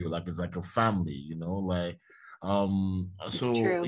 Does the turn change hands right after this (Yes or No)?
No